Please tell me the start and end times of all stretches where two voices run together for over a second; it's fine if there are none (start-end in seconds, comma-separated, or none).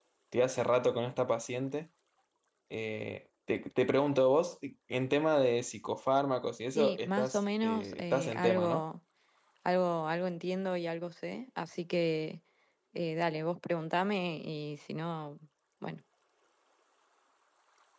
6.8-8.8